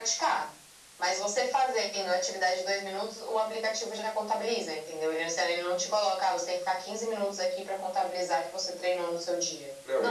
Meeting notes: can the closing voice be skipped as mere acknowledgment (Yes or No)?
No